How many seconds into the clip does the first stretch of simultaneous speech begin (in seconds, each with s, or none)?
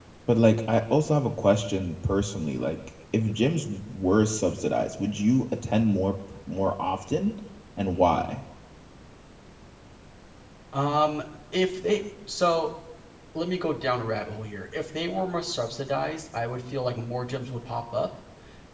none